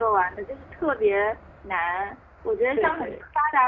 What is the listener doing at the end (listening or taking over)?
listening